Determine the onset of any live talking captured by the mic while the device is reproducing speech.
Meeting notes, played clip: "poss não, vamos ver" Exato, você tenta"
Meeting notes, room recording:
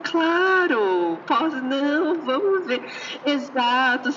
none

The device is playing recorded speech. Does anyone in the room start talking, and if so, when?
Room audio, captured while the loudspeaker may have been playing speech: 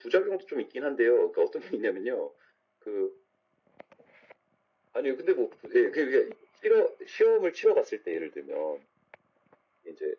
none

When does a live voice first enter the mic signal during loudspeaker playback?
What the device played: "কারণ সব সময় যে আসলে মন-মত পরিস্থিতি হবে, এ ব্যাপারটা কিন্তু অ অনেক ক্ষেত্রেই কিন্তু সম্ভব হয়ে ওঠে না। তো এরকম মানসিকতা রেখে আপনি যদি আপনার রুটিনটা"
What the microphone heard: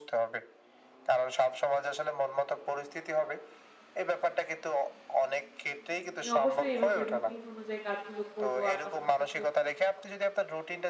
6.2 s

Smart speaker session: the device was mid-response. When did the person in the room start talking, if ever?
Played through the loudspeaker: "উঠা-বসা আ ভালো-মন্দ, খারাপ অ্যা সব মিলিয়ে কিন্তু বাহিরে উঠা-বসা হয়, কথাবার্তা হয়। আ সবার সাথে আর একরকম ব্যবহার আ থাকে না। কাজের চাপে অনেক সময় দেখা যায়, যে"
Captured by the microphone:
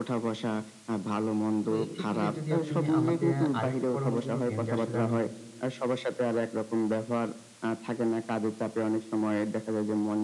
1.7 s

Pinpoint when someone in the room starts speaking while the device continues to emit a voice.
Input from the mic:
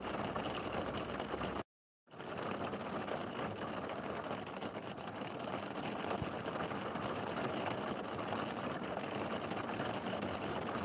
none

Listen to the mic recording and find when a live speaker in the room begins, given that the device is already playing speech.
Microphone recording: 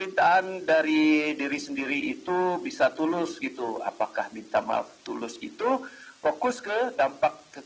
none

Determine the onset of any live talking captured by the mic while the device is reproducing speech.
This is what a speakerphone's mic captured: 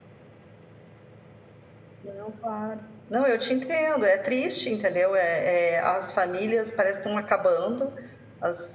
2.0 s

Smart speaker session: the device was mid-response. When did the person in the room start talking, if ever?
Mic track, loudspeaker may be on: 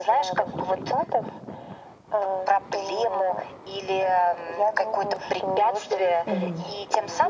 6.3 s

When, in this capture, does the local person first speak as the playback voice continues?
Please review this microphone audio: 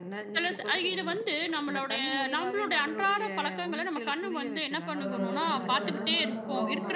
5.0 s

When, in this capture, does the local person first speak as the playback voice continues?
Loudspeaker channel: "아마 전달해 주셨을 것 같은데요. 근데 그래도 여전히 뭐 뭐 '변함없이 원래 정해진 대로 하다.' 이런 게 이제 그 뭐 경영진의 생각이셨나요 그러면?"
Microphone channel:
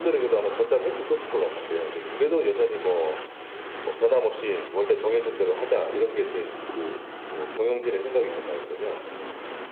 none

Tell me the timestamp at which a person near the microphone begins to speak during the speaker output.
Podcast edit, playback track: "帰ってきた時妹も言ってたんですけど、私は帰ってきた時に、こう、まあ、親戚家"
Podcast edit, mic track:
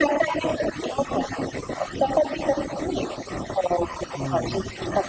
4.1 s

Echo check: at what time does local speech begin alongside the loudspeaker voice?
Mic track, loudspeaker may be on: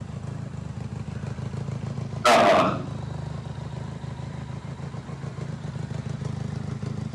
2.2 s

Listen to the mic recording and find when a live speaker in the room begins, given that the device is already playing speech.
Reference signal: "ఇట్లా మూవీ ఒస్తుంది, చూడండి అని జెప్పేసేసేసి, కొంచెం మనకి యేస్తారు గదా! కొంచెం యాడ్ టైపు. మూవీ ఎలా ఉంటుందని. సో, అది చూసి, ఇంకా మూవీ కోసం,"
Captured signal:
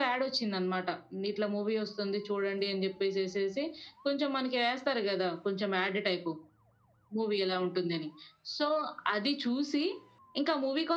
none

